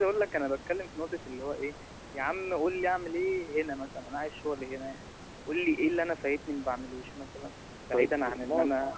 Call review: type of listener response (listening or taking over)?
taking over